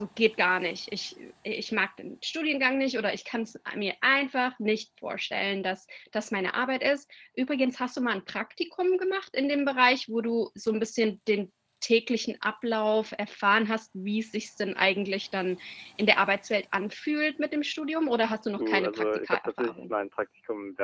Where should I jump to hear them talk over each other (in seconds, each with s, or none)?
18.6 s